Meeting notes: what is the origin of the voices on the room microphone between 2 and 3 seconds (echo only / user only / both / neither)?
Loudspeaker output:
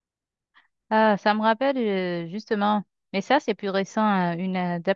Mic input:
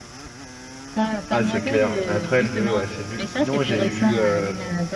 both